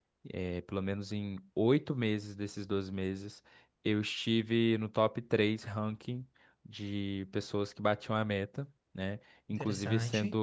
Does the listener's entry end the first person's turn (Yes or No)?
No